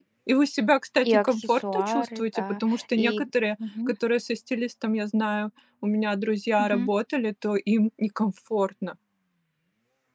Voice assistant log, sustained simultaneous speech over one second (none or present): present